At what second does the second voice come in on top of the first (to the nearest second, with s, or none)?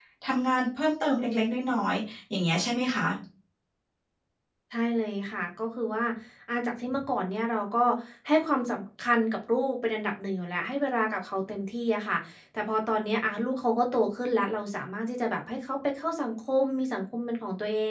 none